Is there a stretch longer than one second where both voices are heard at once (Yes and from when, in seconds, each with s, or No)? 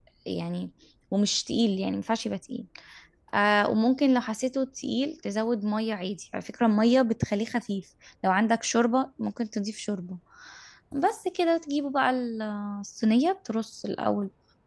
No